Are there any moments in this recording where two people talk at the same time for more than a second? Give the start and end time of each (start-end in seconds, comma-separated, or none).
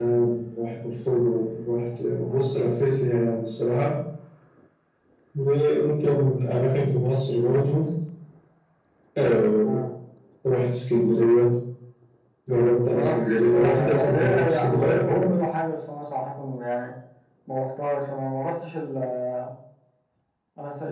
12.9-15.4